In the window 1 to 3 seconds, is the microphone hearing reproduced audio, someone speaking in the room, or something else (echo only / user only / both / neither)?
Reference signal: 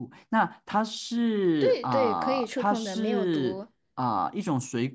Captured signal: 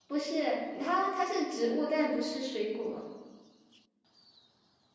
user only